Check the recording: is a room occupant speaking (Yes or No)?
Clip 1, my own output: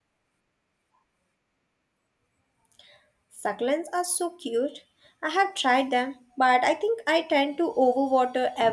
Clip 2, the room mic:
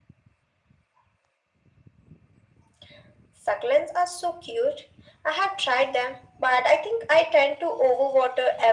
No